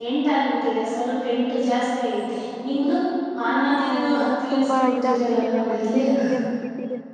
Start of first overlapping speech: 4 s

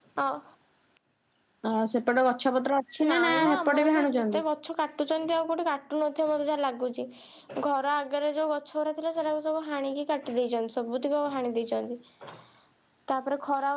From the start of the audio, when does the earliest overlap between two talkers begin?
3 s

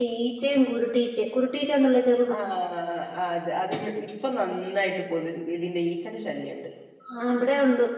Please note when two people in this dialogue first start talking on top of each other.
none

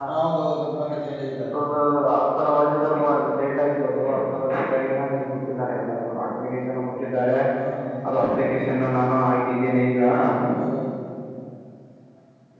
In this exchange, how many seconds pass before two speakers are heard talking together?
none

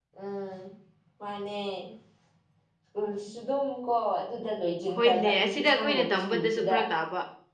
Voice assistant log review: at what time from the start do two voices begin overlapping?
5 s

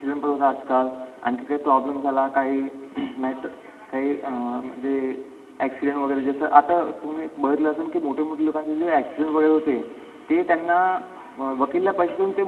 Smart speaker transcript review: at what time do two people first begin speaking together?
none

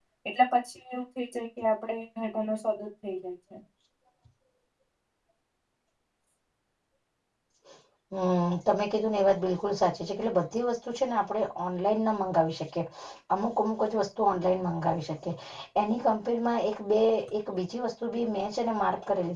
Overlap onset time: none

